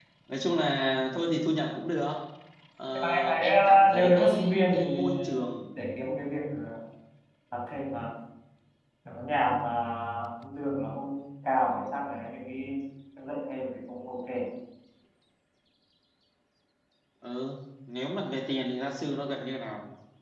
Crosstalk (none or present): present